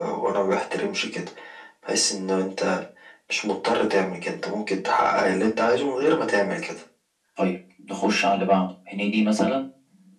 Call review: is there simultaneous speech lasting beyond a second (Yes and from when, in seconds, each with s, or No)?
No